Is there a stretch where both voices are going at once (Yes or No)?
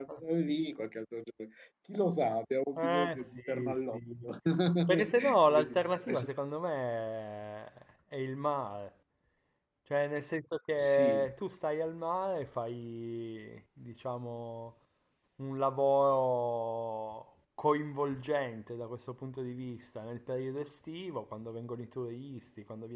Yes